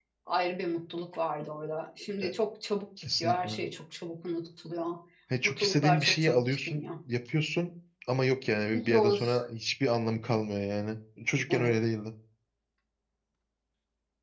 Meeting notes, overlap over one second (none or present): present